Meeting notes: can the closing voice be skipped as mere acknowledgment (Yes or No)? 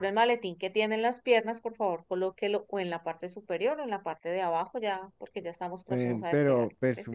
No